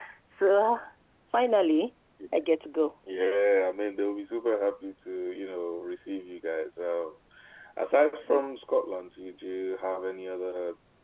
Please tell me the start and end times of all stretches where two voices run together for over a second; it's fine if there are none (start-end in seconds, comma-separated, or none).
none